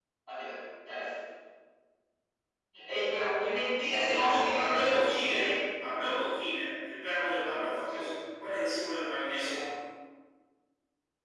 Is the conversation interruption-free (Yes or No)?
No